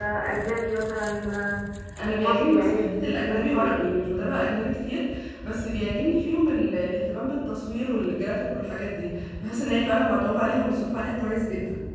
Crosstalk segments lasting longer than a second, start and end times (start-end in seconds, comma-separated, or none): 2.1-3.9